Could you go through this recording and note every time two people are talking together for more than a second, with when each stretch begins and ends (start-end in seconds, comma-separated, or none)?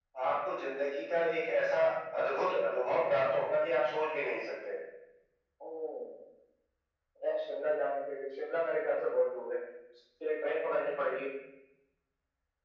none